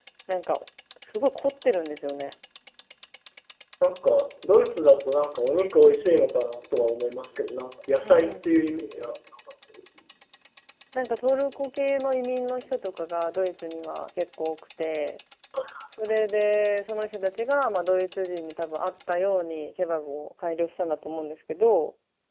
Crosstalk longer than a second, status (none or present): none